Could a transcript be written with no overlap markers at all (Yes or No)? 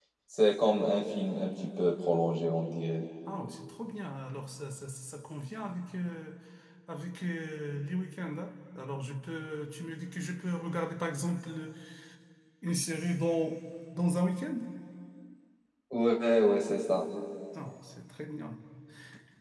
Yes